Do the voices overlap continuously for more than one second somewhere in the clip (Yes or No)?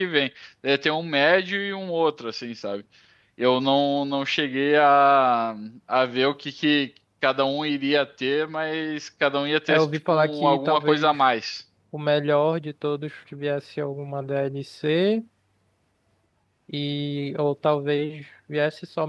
Yes